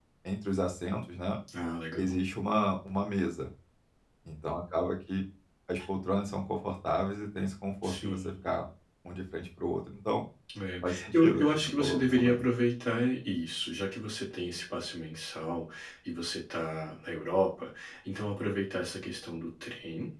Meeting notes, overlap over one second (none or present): present